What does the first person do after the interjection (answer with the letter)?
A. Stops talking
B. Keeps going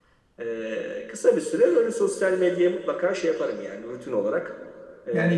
A